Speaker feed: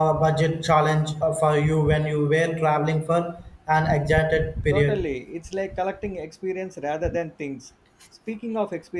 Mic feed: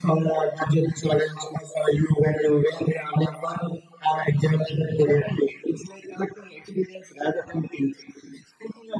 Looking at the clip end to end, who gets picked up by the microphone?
echo only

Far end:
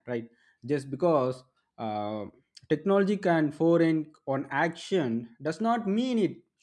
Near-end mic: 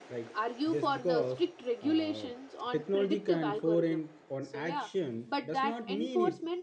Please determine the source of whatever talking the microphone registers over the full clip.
both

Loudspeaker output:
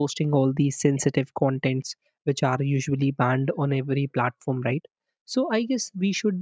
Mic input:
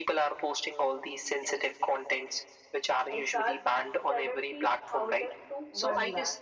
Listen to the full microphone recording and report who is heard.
both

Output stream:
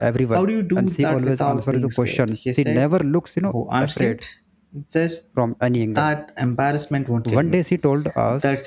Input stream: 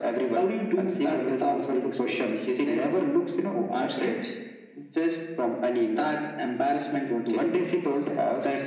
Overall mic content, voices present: echo only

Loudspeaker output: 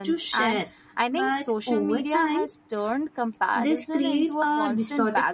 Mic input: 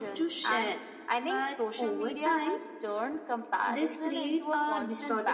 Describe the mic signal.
echo only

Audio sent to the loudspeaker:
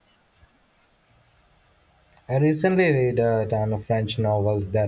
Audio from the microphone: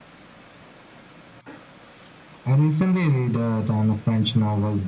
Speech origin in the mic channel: echo only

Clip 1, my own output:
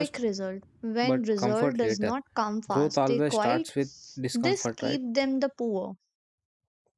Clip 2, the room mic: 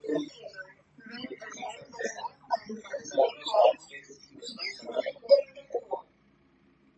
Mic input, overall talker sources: echo only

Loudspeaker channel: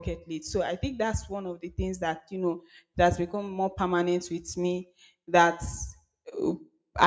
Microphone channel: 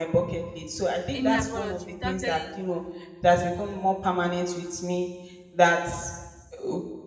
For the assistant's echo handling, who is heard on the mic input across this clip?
both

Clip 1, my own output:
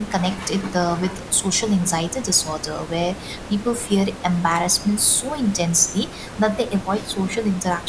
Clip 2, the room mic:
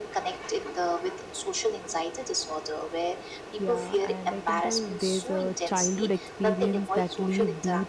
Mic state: both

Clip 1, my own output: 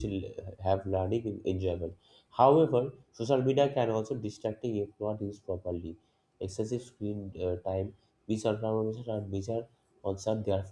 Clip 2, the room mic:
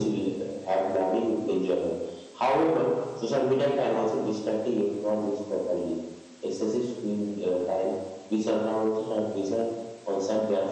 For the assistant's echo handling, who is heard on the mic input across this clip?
echo only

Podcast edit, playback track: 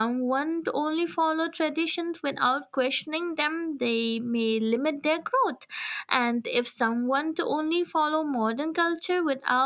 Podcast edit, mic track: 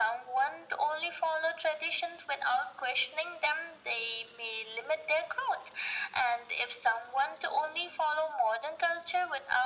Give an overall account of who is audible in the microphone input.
echo only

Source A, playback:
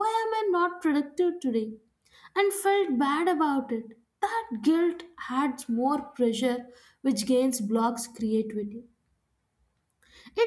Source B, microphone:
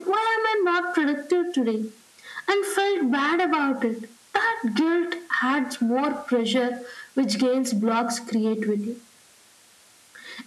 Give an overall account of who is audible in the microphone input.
echo only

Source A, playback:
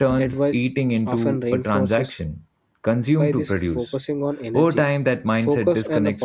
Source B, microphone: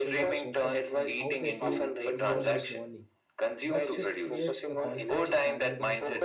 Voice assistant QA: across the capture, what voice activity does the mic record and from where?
both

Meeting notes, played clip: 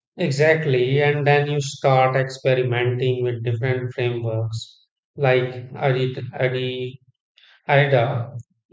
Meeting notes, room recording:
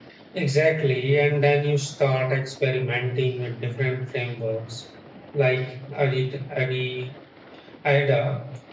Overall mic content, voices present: echo only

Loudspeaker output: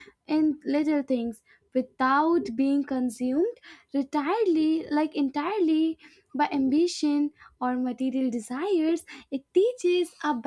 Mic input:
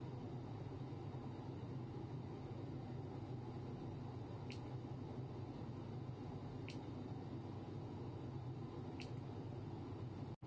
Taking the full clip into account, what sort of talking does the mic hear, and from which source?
neither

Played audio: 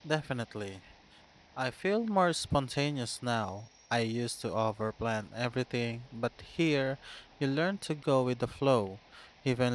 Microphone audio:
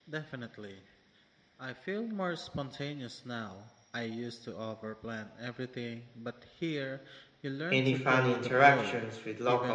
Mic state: both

